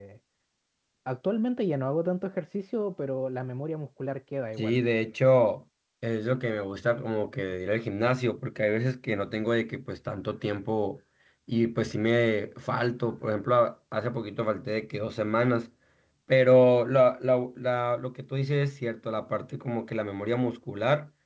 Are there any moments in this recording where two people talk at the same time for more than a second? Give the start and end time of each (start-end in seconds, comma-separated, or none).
none